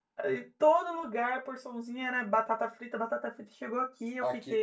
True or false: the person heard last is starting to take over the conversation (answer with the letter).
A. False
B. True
B